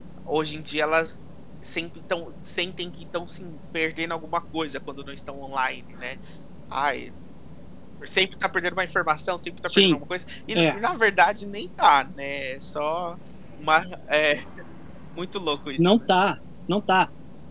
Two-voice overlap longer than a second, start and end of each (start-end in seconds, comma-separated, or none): none